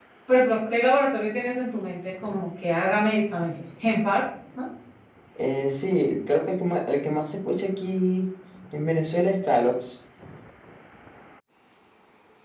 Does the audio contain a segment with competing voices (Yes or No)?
No